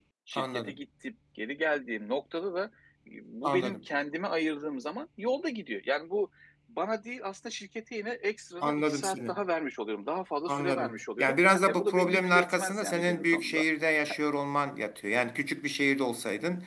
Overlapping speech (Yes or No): Yes